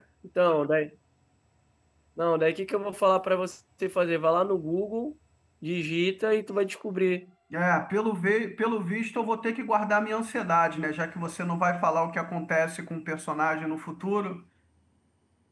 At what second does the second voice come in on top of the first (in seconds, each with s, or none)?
none